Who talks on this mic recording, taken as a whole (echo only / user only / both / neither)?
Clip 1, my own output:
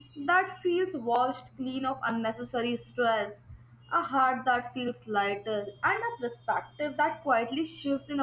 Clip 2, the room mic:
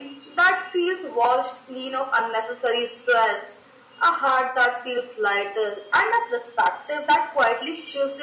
echo only